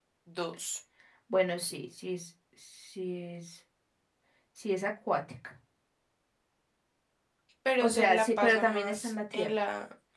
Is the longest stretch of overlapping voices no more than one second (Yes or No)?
No